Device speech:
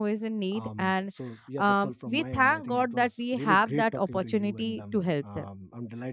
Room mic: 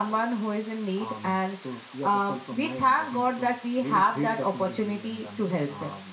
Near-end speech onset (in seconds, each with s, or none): none